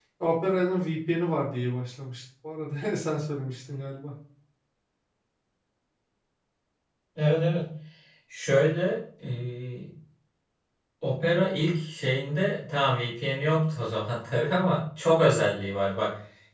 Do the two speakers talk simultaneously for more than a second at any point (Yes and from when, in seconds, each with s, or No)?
No